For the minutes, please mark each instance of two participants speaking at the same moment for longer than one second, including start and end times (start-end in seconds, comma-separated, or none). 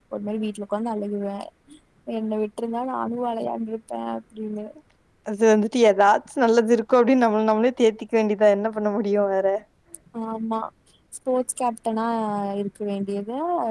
none